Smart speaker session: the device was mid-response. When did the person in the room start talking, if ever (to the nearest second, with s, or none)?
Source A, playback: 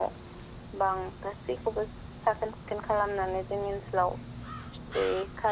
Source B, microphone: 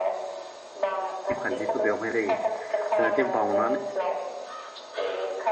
1 s